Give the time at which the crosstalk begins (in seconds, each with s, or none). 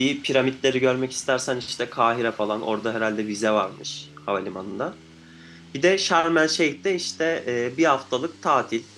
none